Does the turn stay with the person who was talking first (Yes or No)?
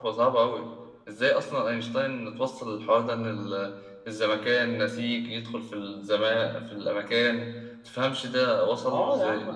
No